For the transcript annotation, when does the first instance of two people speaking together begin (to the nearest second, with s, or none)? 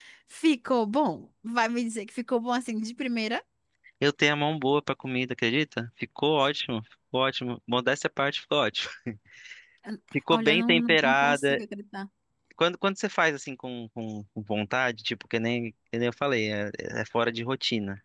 10 s